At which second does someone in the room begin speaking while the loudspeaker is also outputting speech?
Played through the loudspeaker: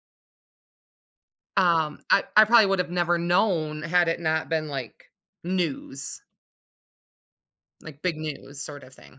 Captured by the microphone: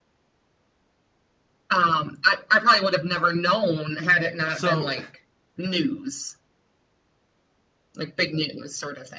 4.5 s

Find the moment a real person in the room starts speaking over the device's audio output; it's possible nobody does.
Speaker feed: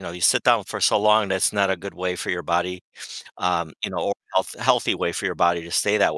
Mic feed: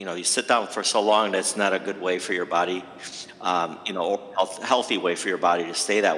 none

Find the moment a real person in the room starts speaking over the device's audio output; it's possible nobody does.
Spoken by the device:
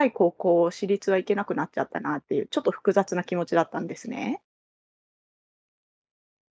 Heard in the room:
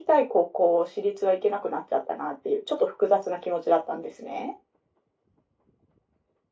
none

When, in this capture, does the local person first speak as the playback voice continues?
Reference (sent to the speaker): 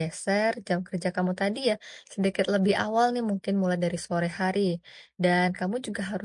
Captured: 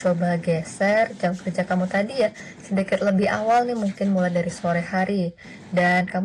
none

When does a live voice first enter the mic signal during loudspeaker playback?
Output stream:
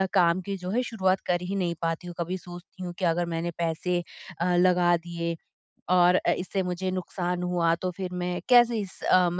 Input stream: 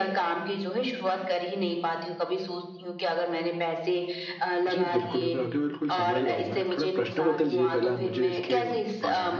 4.7 s

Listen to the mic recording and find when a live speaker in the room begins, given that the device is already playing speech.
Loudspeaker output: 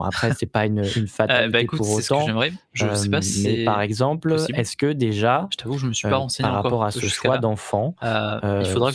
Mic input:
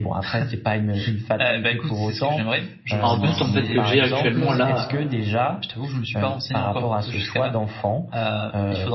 3.0 s

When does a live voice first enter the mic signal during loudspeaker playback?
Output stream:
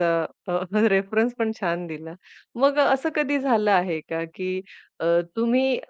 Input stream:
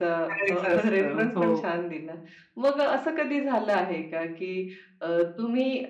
0.3 s

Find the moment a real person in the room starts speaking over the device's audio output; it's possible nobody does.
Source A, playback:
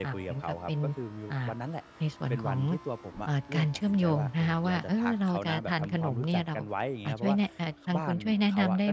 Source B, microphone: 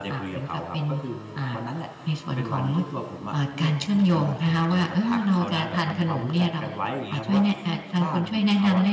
none

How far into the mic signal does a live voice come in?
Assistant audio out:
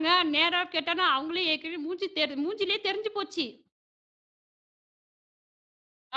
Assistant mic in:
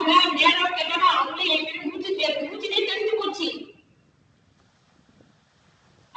none

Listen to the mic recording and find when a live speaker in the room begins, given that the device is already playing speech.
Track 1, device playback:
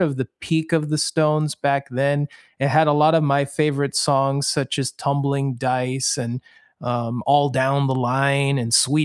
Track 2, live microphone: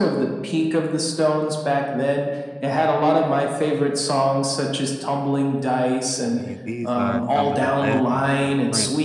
6.2 s

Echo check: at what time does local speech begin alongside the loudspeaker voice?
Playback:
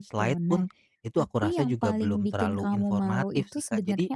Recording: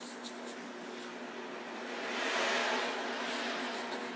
none

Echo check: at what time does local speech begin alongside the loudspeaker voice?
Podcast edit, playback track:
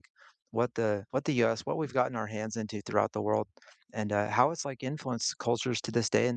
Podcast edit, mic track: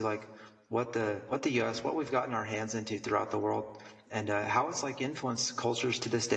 none

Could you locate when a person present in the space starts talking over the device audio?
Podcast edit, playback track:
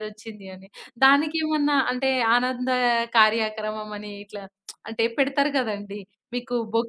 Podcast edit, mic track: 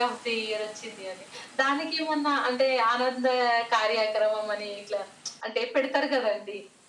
none

